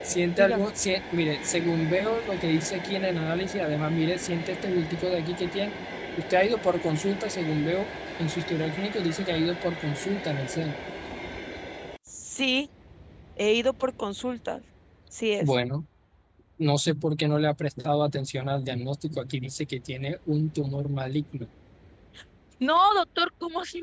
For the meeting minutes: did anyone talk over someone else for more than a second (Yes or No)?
No